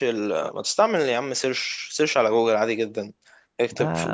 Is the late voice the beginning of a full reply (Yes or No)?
No